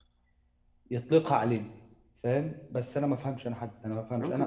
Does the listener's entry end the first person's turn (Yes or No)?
Yes